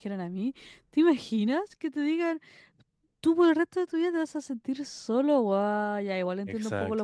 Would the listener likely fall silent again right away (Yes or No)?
Yes